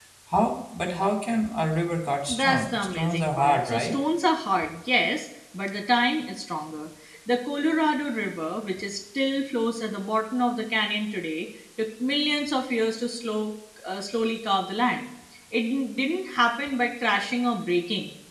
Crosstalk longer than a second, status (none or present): present